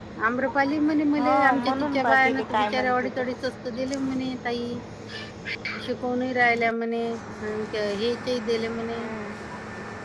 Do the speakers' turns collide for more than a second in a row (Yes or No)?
Yes